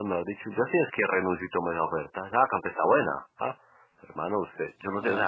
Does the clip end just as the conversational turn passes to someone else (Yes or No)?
No